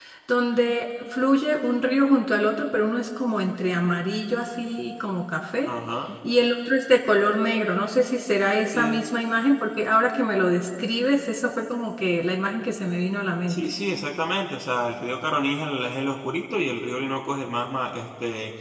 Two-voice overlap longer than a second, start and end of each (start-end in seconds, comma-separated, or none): none